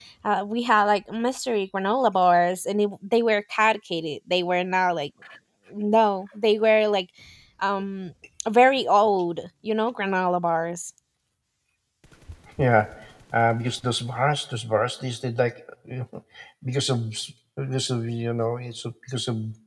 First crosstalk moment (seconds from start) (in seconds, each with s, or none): none